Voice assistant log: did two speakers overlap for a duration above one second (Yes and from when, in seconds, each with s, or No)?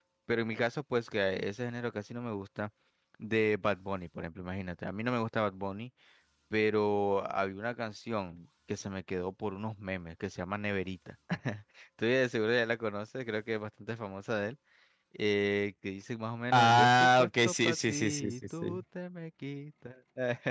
Yes, from 16.5 s